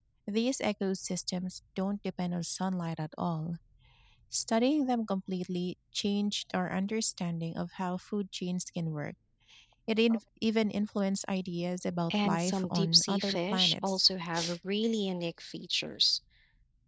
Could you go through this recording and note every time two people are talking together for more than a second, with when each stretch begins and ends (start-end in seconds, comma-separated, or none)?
12.1-14.0